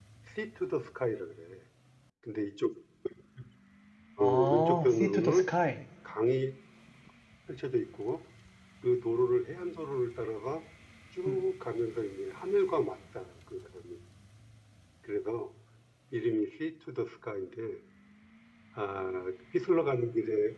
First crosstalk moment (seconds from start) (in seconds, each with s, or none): 4.2 s